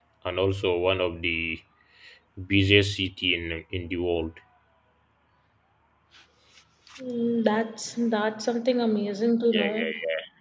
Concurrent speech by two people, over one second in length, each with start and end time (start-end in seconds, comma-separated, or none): none